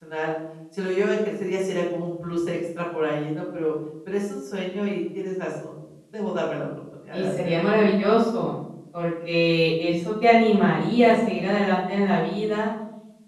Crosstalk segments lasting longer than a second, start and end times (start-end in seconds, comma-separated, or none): none